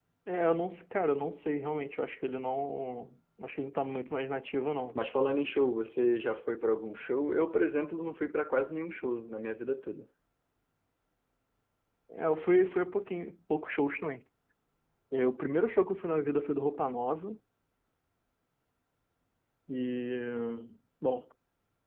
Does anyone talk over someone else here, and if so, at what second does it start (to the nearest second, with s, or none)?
none